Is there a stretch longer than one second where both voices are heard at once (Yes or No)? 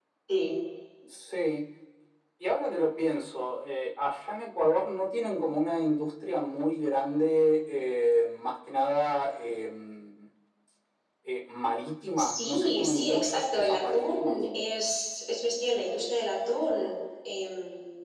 Yes